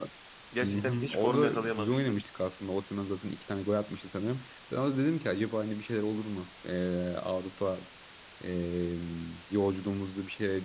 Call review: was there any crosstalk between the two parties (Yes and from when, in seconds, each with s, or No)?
Yes, from 0.6 s